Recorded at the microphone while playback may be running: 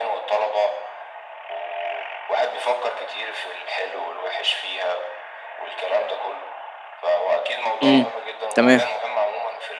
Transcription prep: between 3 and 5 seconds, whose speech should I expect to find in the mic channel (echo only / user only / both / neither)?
echo only